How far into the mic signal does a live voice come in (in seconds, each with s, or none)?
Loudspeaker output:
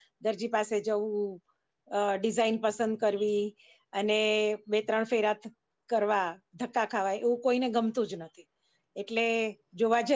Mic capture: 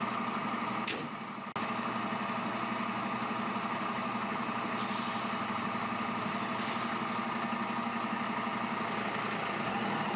none